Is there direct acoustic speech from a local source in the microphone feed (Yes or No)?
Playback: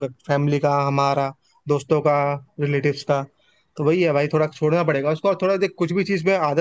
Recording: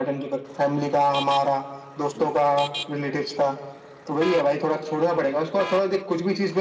No